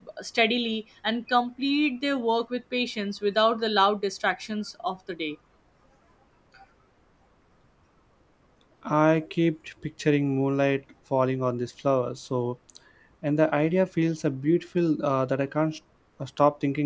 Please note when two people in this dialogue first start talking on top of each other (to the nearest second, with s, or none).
none